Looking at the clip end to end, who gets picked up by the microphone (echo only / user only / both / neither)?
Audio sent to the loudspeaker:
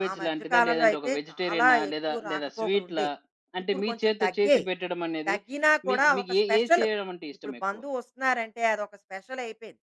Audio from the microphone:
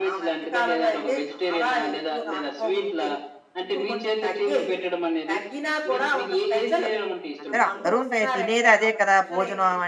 both